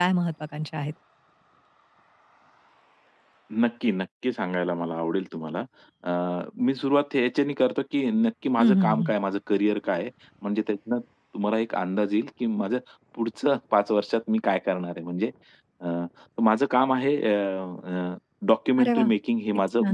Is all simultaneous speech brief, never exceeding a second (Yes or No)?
Yes